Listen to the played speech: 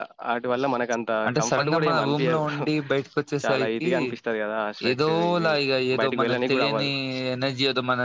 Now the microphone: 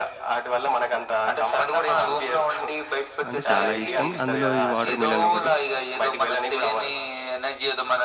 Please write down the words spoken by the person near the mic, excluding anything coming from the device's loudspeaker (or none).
అంటే చాలా ఇష్టం అందులో ఈ వాటర్ మిలన్ ఒకటి